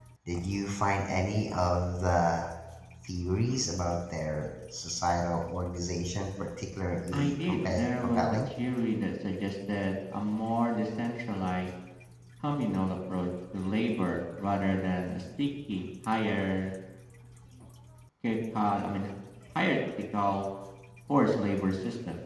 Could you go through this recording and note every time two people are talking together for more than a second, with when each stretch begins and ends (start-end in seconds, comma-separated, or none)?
7.1-8.4